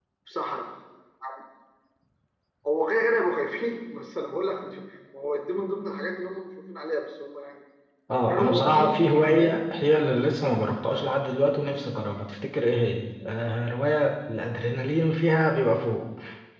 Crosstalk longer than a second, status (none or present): present